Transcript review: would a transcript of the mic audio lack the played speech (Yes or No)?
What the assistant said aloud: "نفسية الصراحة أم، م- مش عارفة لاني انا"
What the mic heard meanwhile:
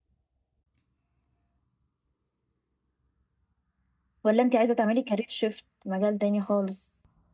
Yes